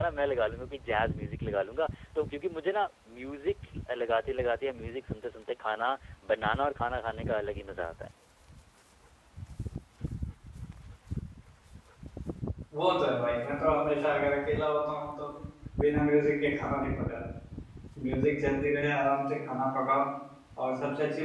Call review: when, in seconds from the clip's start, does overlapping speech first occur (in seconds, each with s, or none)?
none